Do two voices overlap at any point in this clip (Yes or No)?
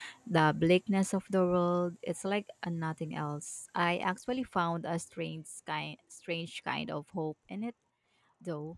No